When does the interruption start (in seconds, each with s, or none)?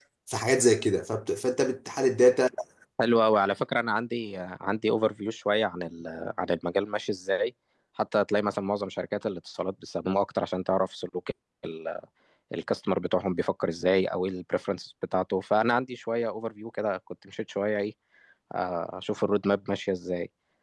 none